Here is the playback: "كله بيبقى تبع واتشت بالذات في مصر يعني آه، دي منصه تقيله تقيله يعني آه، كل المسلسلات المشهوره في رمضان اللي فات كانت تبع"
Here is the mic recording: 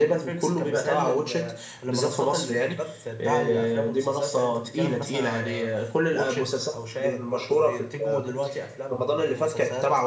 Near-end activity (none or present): present